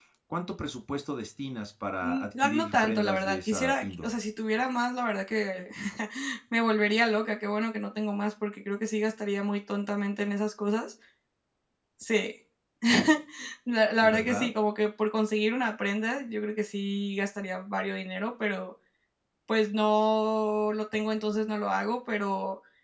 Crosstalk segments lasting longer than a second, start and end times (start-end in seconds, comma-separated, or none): 2.0-4.1